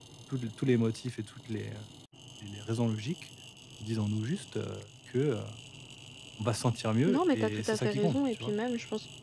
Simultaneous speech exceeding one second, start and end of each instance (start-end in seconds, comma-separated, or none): 7.1-8.5